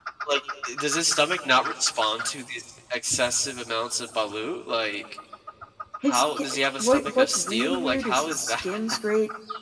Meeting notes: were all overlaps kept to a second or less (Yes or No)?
No